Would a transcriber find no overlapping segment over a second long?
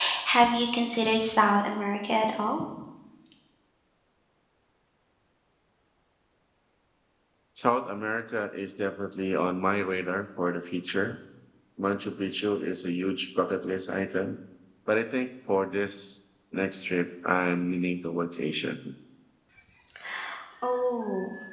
Yes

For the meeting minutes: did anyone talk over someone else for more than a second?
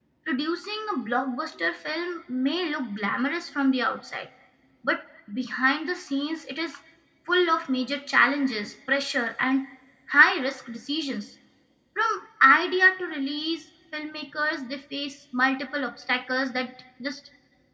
No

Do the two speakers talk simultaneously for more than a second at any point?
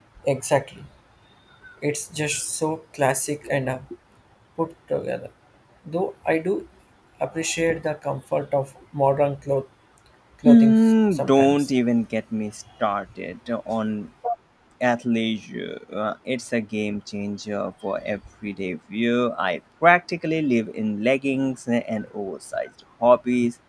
Yes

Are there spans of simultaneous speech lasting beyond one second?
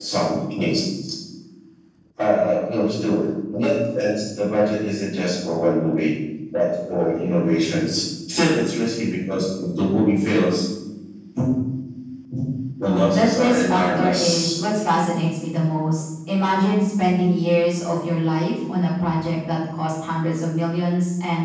Yes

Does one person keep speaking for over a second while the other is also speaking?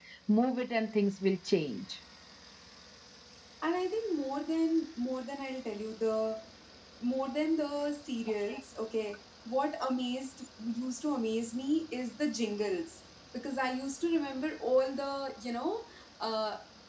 No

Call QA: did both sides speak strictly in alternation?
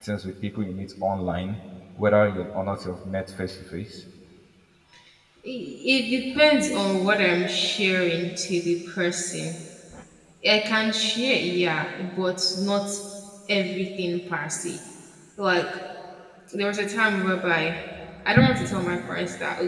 Yes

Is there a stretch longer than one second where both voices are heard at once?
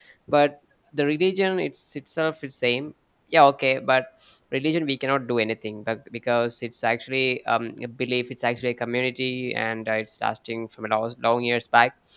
No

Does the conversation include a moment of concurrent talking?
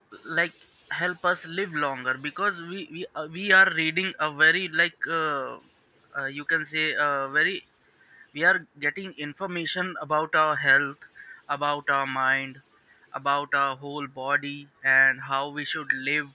No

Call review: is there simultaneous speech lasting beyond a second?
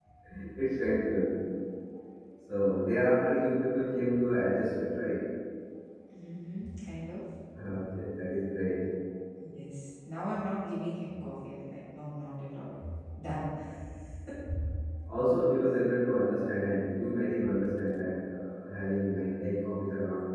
No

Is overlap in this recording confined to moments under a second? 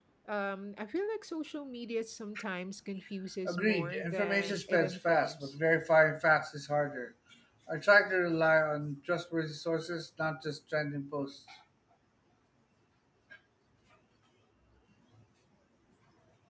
No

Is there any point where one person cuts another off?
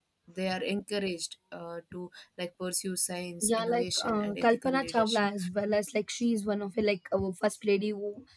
Yes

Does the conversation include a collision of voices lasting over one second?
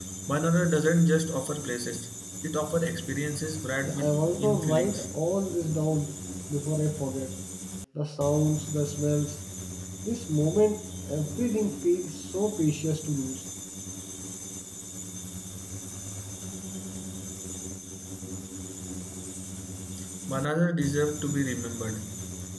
Yes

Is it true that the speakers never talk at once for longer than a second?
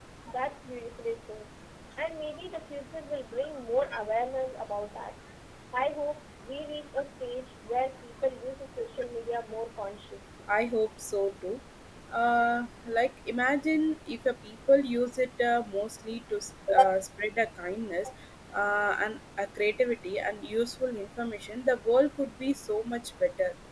Yes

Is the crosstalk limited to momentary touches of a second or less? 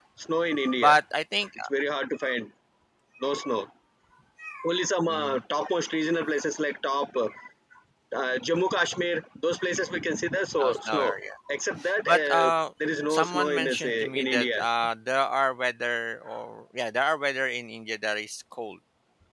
No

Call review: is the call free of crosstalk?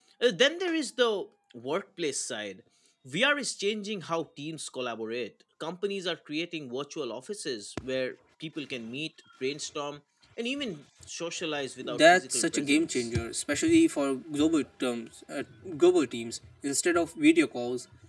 No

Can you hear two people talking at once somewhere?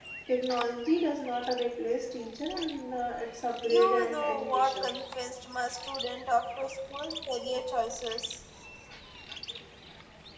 Yes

